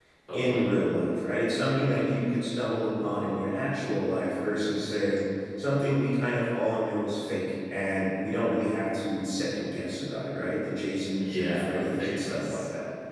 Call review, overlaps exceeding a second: present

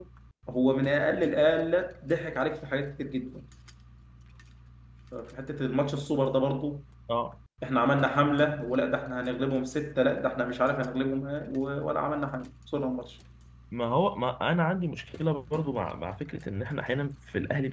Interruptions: none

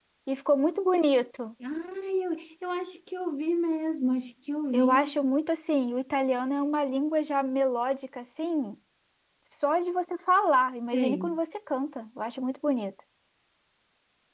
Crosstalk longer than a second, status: none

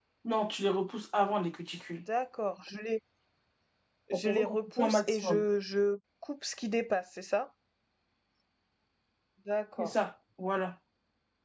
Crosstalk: present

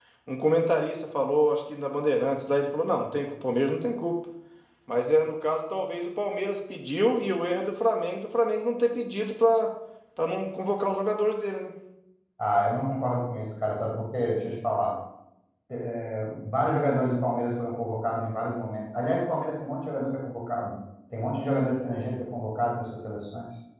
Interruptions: none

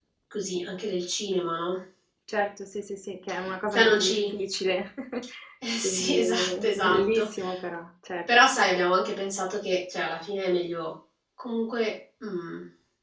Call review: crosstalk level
present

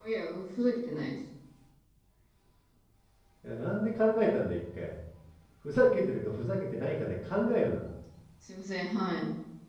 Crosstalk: none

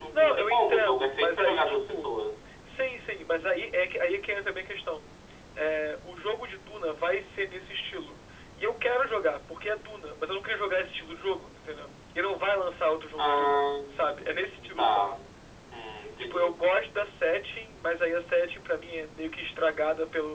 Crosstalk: present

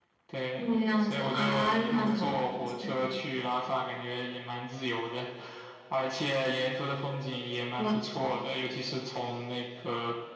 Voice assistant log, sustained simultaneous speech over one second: present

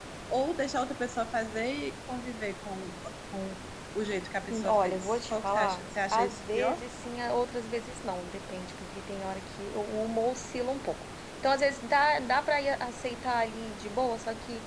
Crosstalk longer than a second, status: present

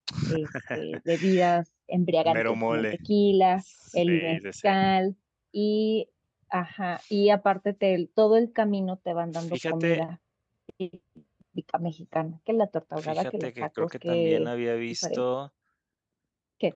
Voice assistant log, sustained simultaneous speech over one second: present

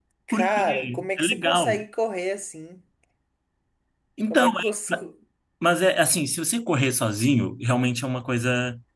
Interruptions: present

